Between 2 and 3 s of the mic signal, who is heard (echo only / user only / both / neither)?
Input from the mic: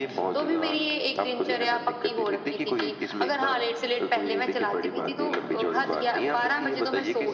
echo only